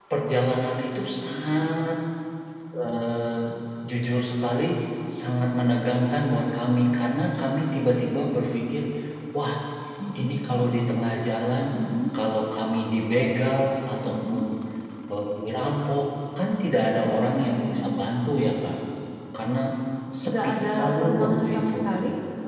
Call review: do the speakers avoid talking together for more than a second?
No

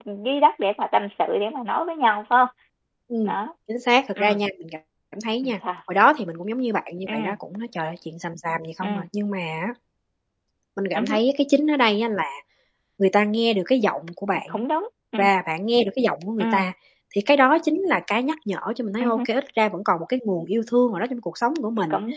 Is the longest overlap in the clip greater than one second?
No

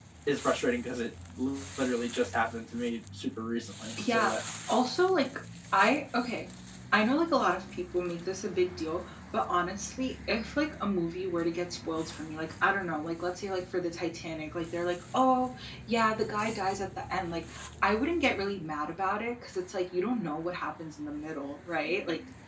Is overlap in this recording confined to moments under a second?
Yes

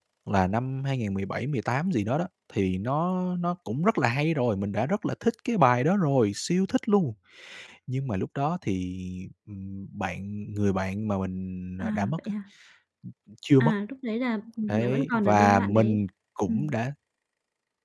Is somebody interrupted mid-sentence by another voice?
Yes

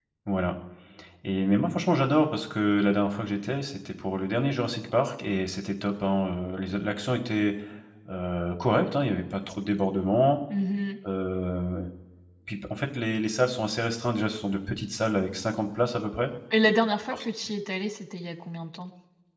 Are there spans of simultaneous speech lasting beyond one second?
No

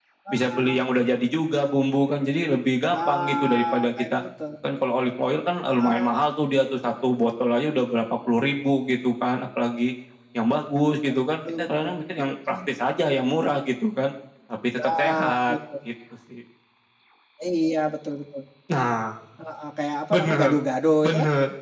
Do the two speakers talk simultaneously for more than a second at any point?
Yes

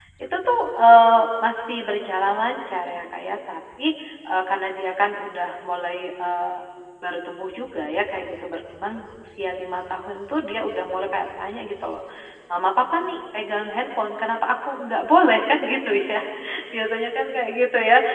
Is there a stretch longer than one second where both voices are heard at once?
No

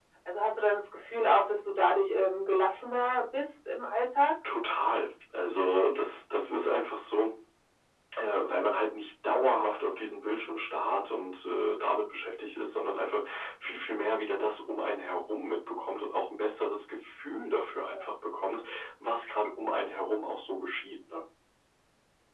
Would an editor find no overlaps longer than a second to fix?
Yes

